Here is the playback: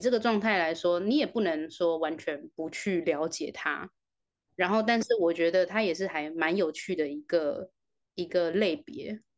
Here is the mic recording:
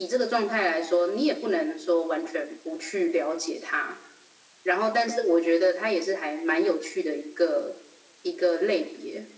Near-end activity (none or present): none